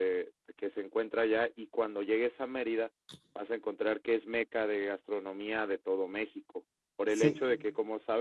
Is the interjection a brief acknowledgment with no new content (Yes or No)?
Yes